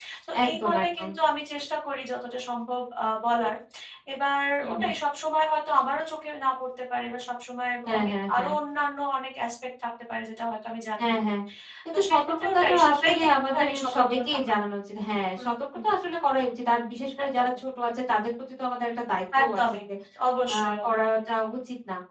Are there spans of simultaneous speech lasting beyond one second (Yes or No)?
Yes